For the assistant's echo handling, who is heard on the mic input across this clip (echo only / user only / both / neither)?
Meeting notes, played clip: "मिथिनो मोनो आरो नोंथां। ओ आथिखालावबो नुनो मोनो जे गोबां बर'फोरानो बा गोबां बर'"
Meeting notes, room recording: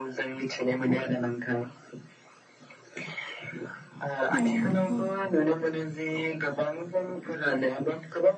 both